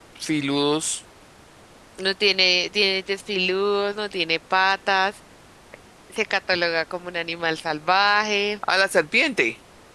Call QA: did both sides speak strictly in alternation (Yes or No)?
Yes